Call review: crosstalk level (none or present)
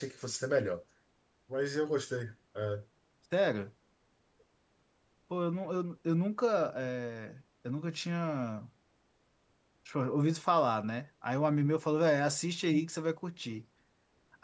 none